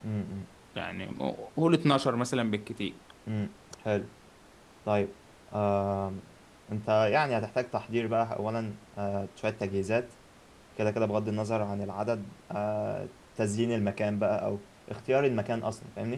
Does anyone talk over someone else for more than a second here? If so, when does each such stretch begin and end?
none

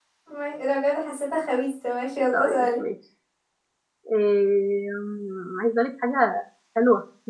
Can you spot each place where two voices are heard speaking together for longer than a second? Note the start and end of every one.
none

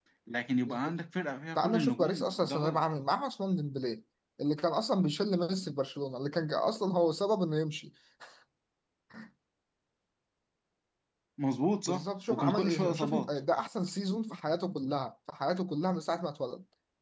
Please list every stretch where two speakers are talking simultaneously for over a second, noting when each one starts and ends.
1.6-2.8, 11.9-13.3

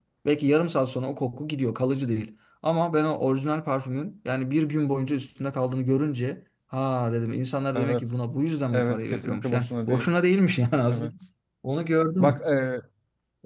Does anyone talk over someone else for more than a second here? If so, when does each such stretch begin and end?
8.7-10.1

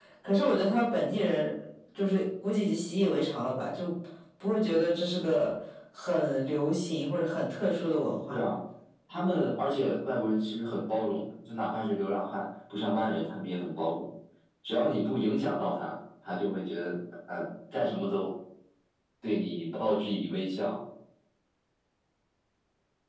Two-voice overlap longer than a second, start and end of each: none

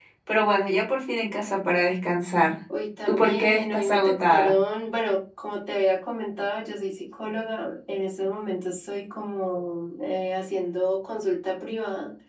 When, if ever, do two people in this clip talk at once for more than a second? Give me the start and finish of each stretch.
3.1-4.6

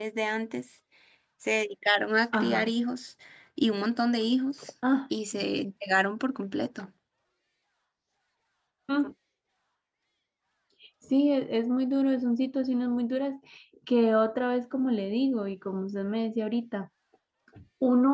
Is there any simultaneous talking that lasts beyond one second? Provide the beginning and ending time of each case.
none

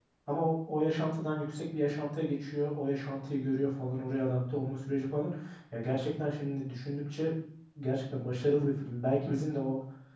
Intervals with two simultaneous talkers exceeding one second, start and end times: none

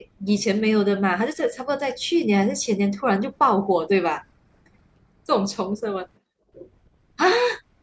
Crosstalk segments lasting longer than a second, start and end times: none

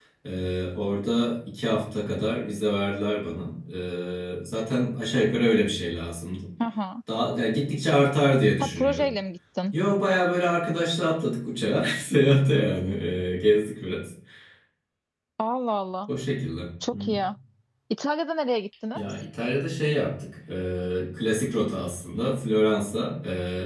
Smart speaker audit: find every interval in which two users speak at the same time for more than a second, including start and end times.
none

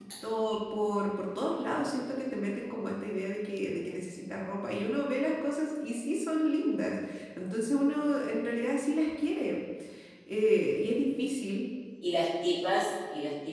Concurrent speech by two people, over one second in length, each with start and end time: none

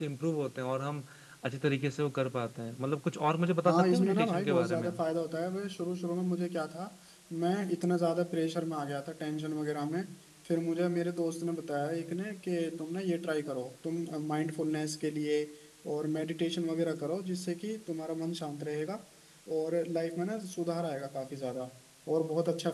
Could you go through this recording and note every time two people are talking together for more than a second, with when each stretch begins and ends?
3.6-4.9

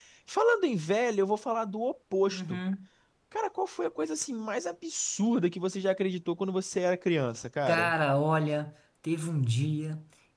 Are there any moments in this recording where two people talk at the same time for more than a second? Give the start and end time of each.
none

